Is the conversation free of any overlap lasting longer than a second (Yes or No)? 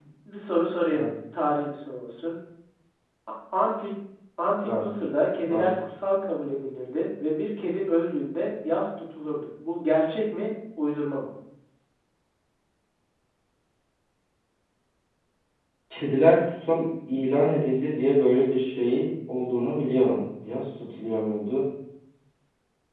Yes